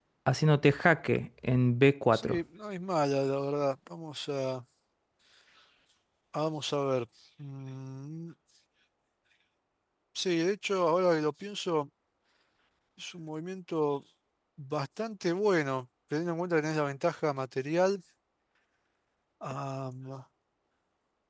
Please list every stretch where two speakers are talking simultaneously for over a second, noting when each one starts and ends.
none

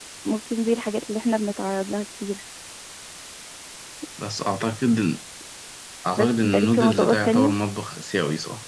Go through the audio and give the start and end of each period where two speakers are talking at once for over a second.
6.2-7.5

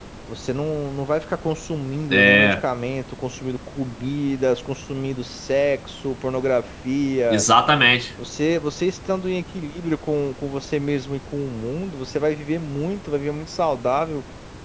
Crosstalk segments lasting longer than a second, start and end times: none

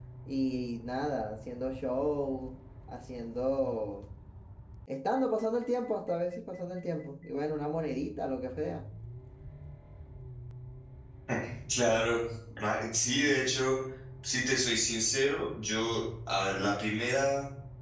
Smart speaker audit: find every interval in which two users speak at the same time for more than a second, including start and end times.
none

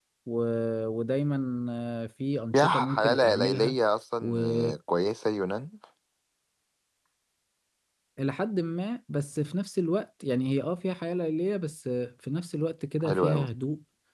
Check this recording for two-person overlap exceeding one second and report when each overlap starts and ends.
2.5-3.8

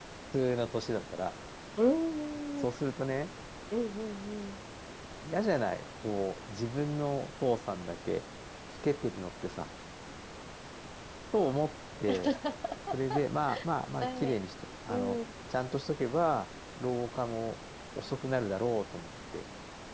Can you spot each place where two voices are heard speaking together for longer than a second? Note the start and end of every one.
none

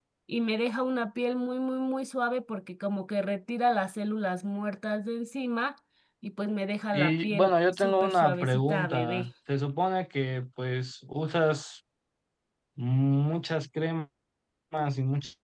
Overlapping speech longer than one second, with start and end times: 6.9-9.3

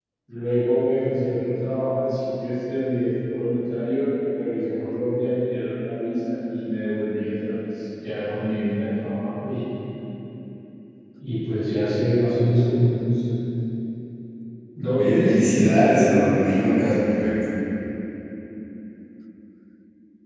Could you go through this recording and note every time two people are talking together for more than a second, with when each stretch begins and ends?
14.9-16.2

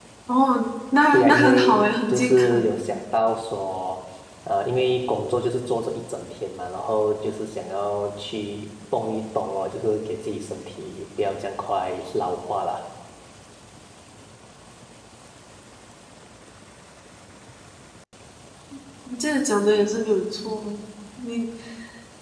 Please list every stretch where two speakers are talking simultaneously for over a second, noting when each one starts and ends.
1.1-2.7

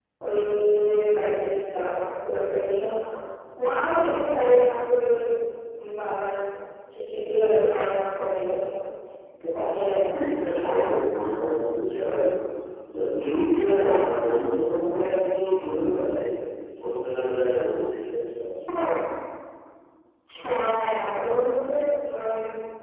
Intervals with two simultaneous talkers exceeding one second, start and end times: none

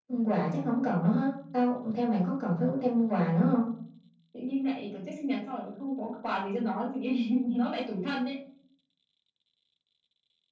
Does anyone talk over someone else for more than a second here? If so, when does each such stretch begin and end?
none

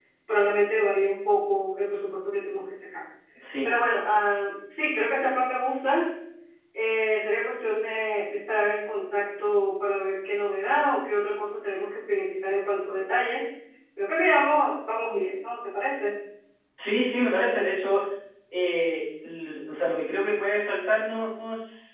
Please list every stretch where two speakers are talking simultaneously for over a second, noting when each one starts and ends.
none

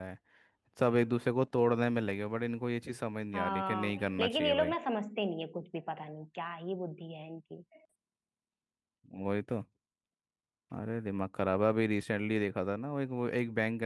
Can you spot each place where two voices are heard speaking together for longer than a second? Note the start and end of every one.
3.3-4.7

